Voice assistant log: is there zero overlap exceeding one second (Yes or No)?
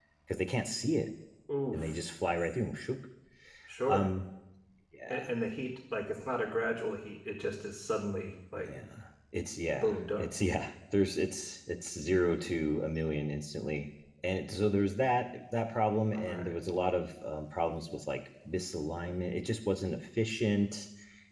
Yes